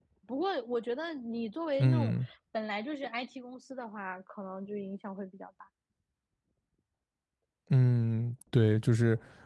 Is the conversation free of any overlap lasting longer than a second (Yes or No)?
Yes